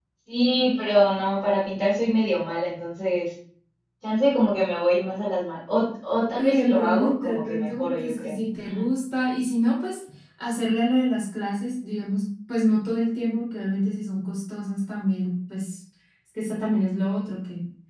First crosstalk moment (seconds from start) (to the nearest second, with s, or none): 6 s